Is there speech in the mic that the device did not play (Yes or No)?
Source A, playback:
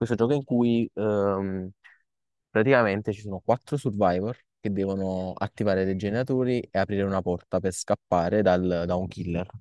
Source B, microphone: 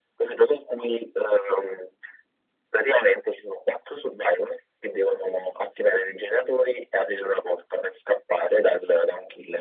No